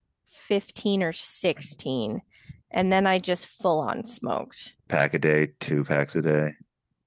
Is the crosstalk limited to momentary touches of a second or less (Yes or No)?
Yes